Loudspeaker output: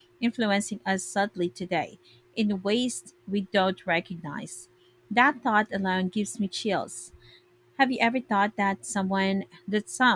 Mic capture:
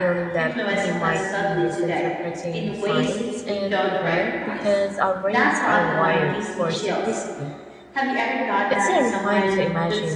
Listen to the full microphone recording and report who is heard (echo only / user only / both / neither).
both